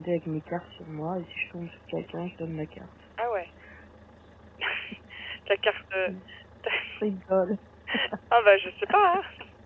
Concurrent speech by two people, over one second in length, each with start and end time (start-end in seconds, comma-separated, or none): none